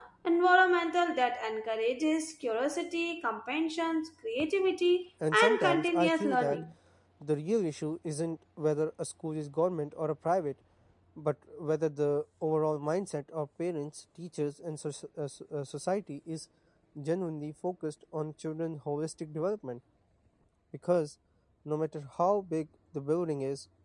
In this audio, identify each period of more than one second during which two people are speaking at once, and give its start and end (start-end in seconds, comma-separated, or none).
5.3-6.6